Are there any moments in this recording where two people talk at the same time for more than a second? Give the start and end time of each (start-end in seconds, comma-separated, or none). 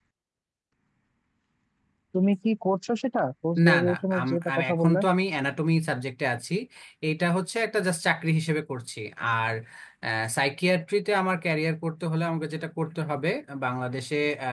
3.7-5.0